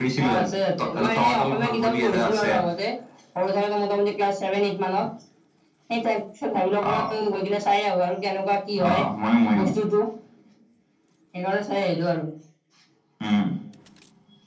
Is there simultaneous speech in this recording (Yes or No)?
Yes